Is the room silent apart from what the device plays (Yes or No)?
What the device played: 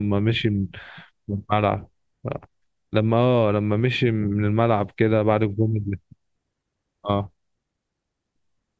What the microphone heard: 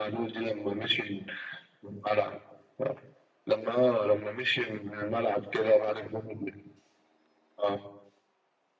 Yes